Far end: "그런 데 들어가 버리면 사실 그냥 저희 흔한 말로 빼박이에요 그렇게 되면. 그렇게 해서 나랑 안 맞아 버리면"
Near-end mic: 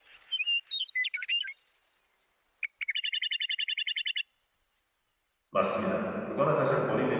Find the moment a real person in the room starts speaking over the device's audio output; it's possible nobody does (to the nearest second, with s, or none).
6 s